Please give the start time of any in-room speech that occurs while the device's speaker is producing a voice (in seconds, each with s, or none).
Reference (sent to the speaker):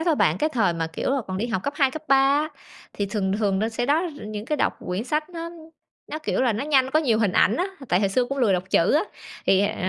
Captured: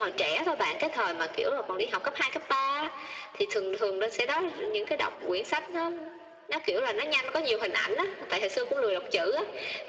none